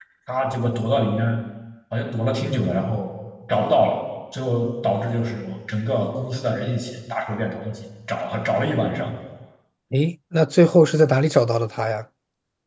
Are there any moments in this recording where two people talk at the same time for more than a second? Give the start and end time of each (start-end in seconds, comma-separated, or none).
none